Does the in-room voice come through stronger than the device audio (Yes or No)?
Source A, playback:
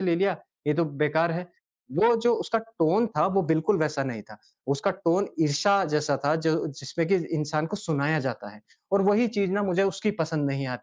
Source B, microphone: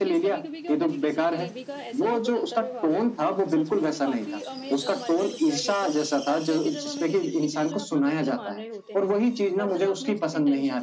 No